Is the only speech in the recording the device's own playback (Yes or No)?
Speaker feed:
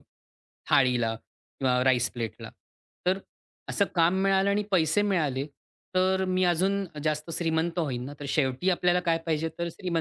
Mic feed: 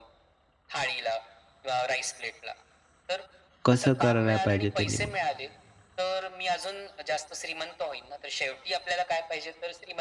No